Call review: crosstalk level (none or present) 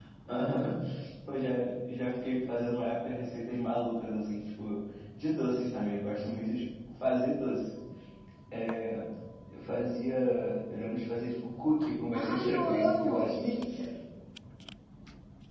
present